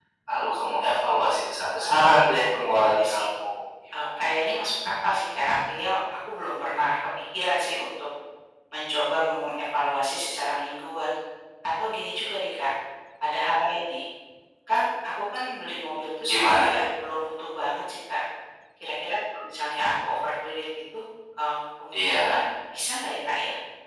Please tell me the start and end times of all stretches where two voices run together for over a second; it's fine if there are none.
1.8-3.2

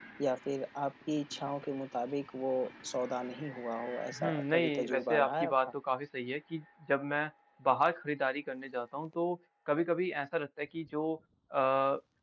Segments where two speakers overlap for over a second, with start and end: 4.2-5.5

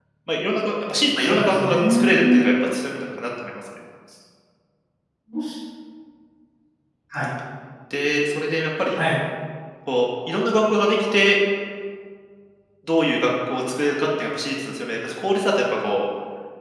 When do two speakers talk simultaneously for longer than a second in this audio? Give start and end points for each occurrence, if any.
1.1-2.5

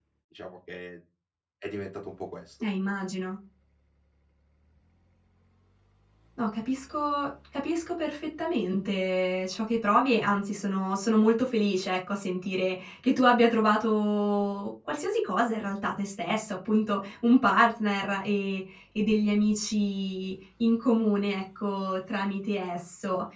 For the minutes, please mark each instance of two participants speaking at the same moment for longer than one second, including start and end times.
none

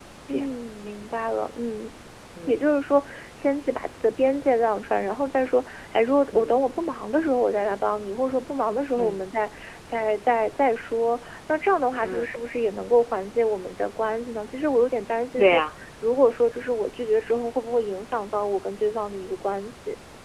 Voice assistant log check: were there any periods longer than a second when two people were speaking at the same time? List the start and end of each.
none

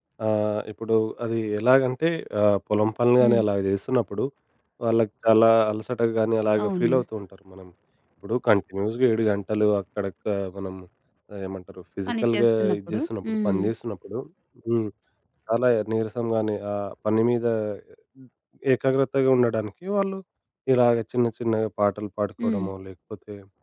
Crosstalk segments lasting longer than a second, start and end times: 12.1-13.6

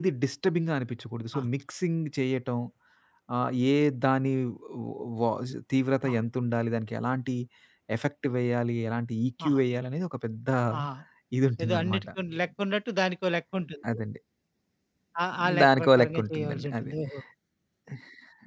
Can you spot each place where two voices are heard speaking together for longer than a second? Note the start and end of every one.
15.6-16.9

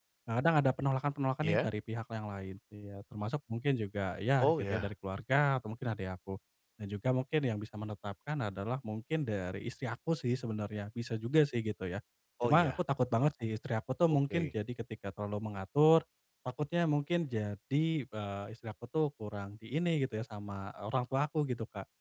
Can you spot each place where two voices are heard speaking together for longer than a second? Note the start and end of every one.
none

